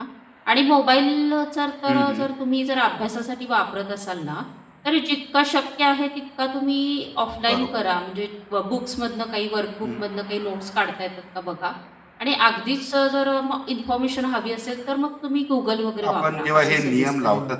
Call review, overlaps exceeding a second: present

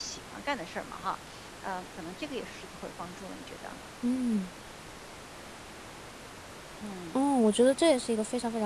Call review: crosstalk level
none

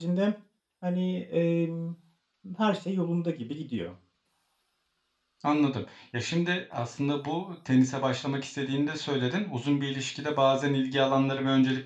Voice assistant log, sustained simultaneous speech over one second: none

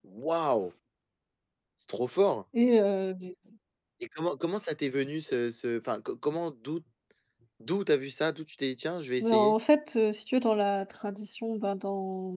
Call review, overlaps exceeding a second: none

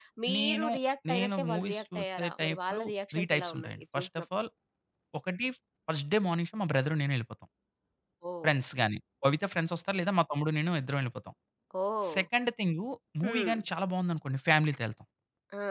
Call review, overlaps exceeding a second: present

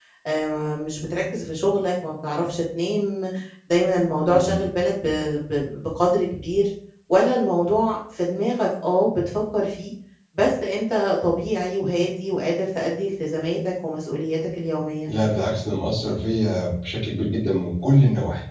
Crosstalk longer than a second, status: none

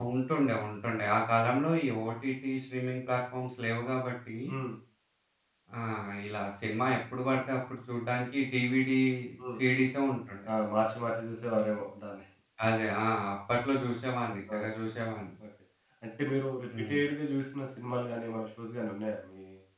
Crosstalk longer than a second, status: none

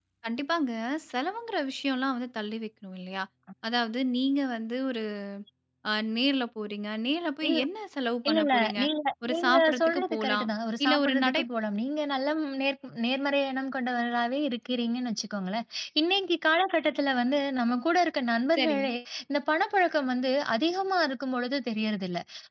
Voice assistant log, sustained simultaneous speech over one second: present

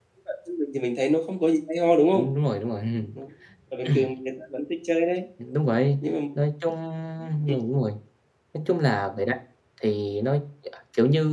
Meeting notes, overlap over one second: none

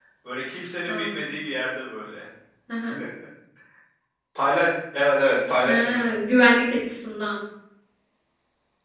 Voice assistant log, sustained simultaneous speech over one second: none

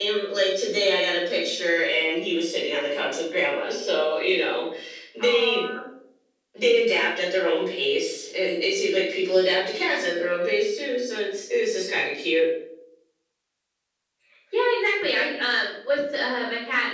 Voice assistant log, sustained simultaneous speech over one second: none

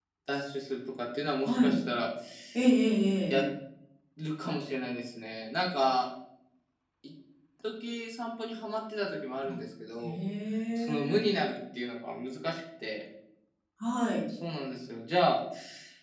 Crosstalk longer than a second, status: none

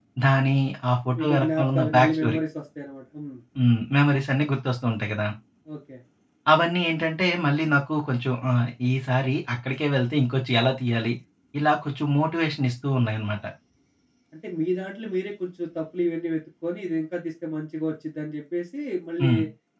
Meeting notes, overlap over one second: present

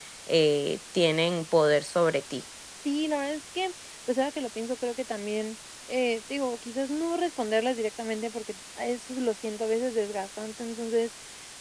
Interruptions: none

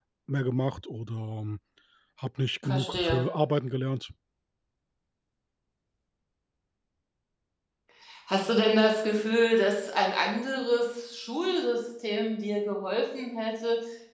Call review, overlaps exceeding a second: none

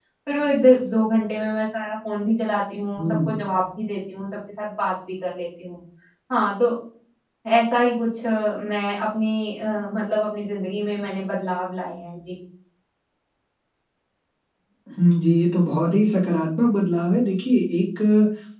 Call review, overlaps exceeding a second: none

